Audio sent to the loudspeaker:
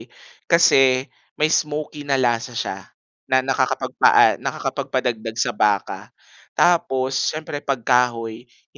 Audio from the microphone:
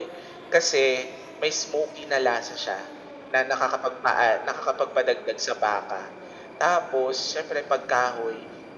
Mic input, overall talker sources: echo only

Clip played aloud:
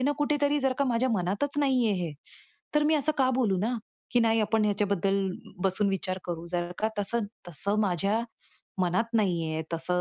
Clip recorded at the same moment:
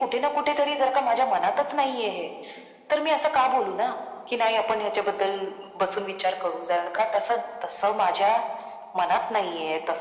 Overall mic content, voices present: echo only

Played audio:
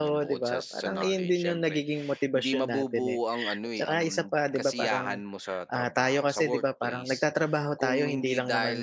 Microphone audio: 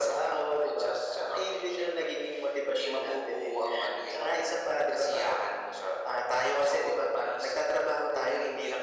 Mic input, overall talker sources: echo only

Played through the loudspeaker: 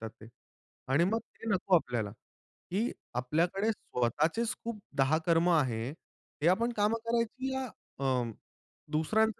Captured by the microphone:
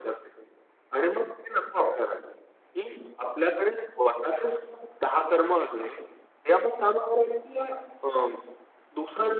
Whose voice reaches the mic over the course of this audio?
echo only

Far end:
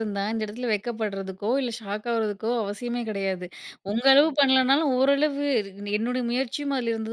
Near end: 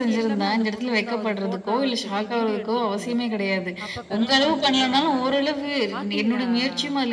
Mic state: both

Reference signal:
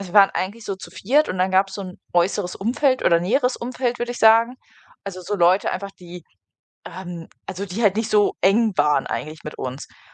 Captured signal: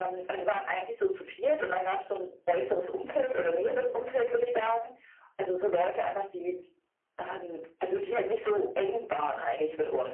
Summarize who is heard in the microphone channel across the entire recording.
echo only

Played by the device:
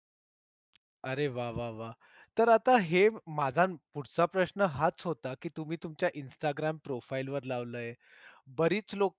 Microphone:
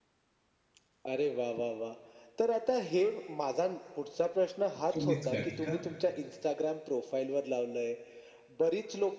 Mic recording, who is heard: both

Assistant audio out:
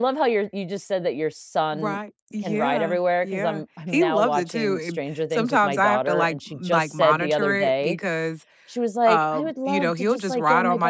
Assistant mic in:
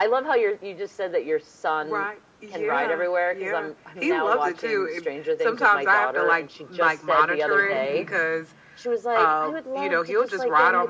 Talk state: both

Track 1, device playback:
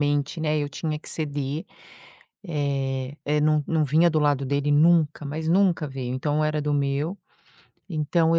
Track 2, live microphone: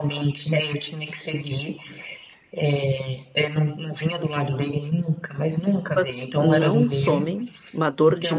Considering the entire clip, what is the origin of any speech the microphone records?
both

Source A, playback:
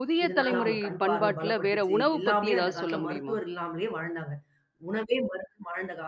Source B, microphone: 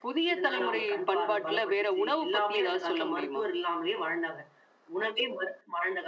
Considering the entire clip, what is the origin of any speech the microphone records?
echo only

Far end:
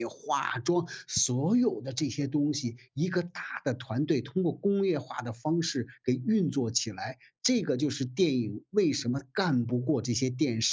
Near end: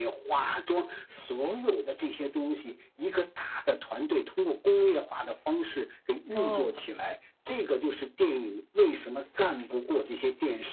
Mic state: both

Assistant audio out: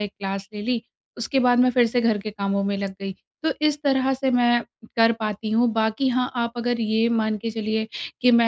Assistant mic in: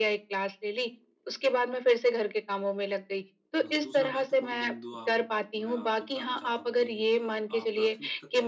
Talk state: both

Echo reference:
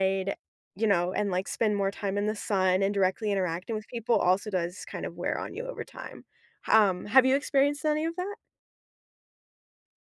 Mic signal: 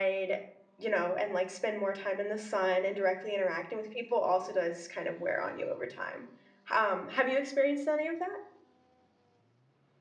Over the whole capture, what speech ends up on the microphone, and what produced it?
echo only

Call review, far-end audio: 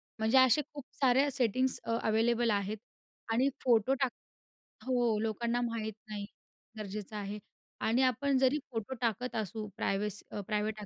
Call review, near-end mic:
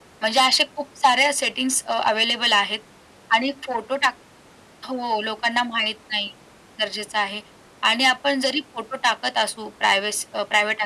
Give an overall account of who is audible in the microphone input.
echo only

